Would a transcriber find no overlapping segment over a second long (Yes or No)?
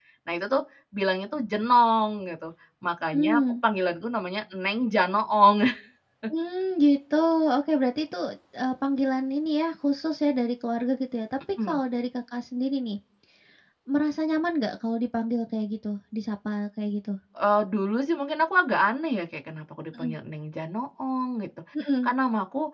Yes